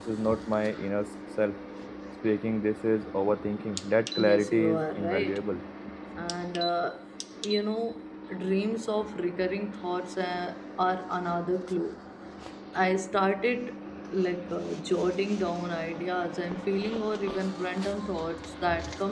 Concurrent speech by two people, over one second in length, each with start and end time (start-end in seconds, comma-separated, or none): 4.2-5.4